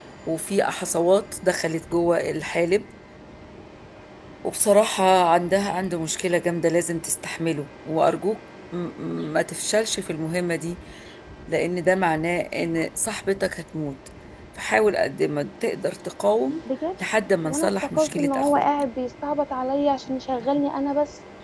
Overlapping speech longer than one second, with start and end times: 17.4-18.6

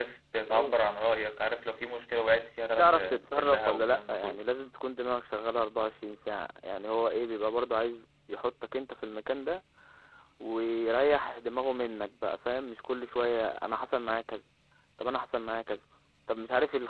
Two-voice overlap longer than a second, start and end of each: 2.8-4.4

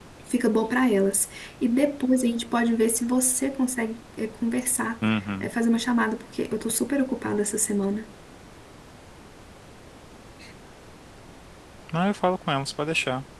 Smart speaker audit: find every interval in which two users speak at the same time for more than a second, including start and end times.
none

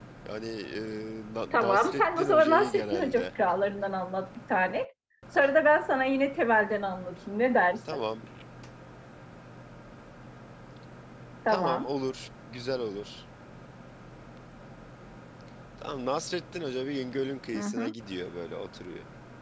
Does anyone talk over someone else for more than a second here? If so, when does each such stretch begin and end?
1.5-3.2

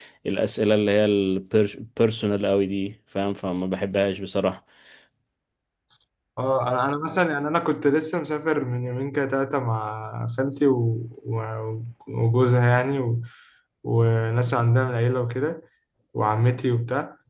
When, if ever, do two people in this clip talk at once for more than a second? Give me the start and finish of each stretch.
none

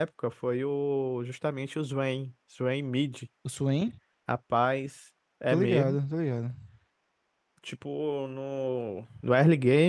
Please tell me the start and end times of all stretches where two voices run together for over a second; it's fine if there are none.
none

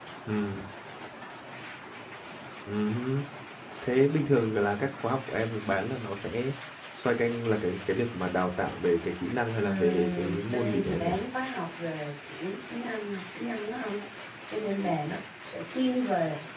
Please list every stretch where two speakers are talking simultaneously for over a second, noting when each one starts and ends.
9.6-11.1

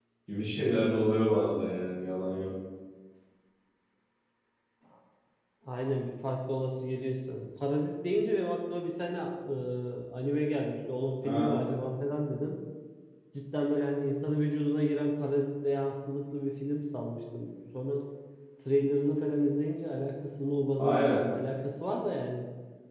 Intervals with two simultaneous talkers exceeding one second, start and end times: none

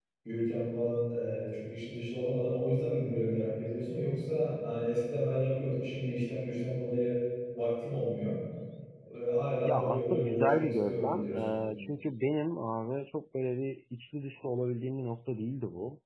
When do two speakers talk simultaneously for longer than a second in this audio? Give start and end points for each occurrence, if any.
9.6-11.6

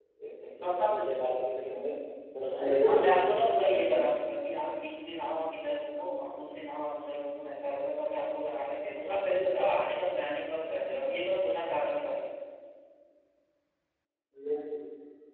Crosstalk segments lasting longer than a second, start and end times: 2.6-4.1

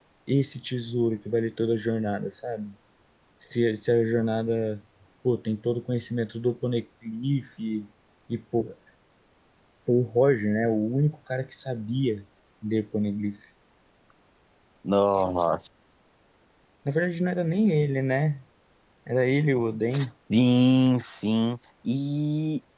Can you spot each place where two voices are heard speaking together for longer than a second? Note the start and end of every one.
none

